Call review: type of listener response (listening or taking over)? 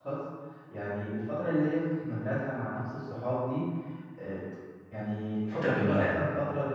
listening